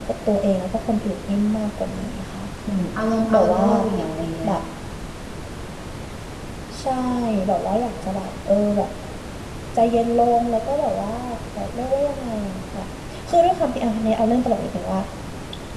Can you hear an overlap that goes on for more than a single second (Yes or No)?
No